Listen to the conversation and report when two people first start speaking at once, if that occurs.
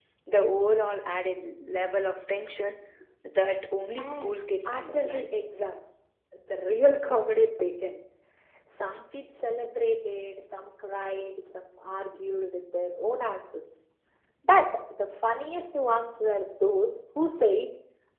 4.0 s

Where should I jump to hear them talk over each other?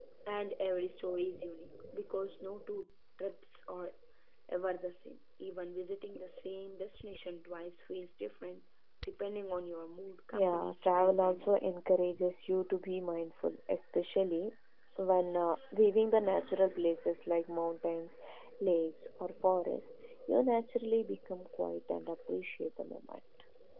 10.3 s

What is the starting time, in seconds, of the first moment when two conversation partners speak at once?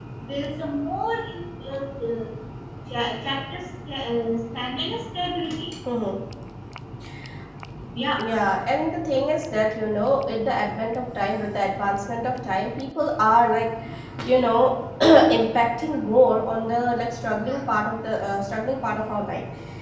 none

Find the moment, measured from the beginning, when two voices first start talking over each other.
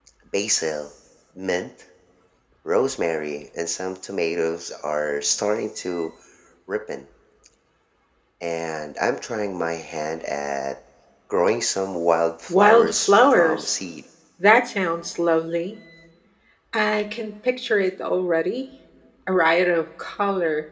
12.5 s

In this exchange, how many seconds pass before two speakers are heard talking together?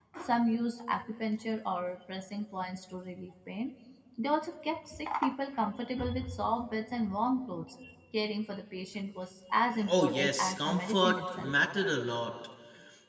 9.7 s

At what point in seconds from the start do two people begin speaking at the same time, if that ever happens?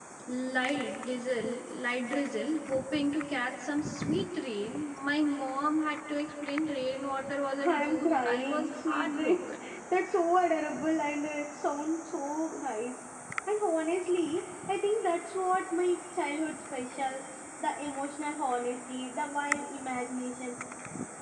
7.6 s

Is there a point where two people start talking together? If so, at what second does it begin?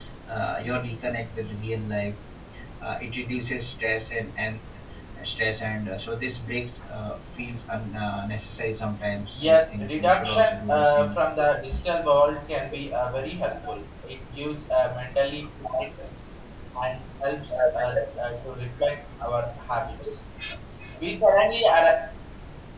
9.3 s

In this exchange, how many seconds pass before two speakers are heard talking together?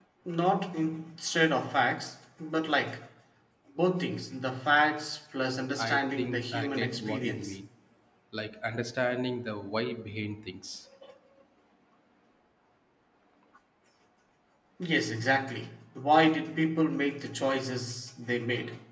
5.8 s

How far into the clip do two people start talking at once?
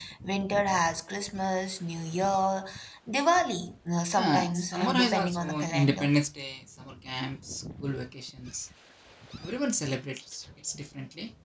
4.2 s

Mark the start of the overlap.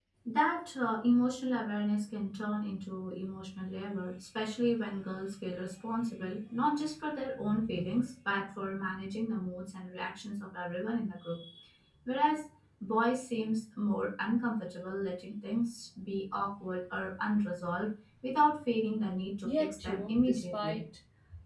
19.4 s

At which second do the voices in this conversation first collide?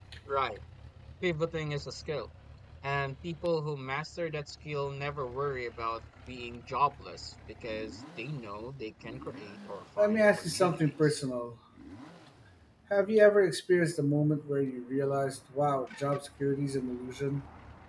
10.0 s

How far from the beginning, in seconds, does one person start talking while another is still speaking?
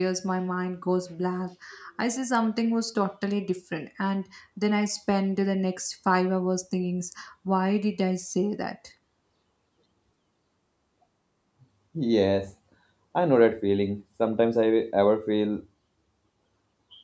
none

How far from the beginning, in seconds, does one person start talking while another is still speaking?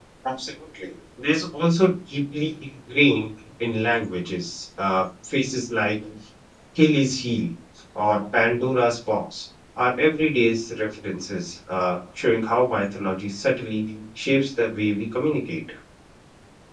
none

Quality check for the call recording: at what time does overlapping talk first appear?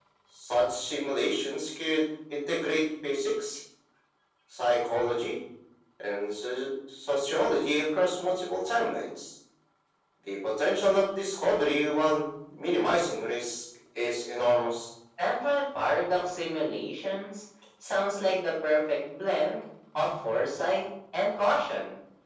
none

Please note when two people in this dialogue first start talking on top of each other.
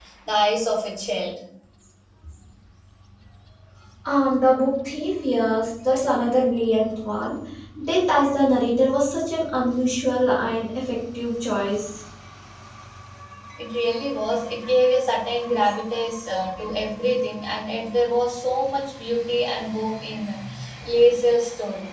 none

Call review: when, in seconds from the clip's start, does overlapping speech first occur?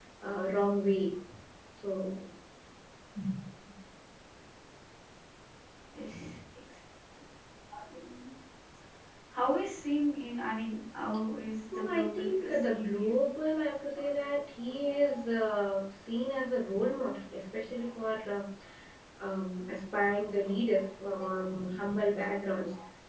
11.7 s

